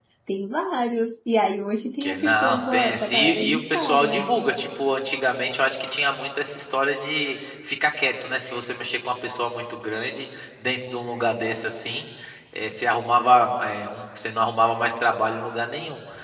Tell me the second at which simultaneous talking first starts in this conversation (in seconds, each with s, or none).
2.0 s